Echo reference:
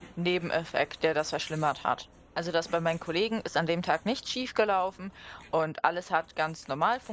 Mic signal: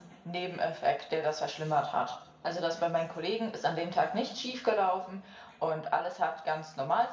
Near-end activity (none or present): none